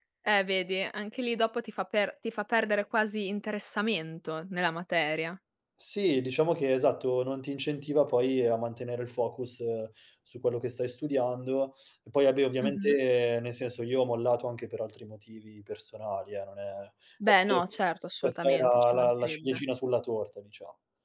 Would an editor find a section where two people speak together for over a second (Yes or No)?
Yes